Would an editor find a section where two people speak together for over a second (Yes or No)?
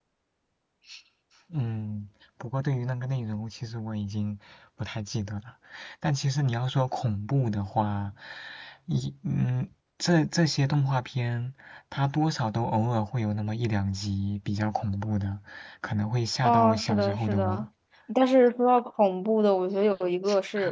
Yes